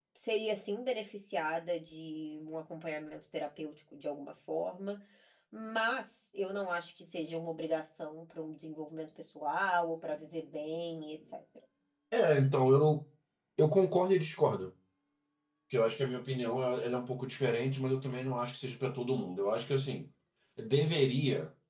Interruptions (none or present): none